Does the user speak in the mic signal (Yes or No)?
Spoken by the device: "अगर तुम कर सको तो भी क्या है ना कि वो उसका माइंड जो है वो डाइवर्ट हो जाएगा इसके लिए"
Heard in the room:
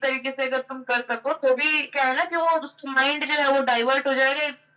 No